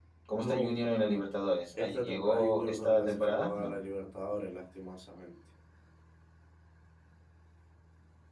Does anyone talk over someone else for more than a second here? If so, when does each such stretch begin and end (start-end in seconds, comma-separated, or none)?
1.8-3.7